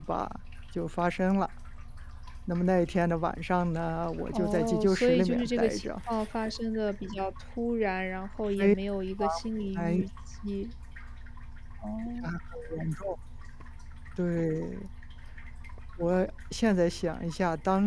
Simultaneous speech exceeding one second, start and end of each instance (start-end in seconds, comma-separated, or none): 4.3-5.8